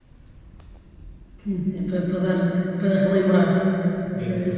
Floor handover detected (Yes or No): No